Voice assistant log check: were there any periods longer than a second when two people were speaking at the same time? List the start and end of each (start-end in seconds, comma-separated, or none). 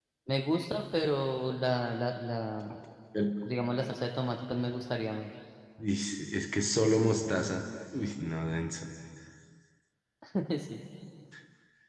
none